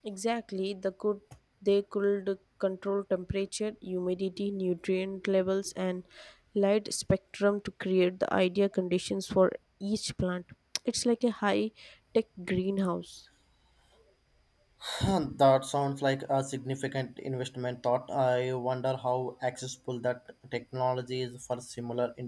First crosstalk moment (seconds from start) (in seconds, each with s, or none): none